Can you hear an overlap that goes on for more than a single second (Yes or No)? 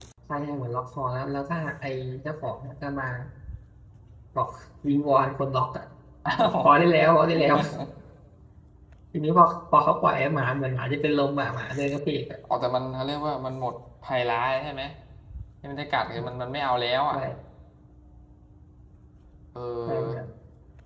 No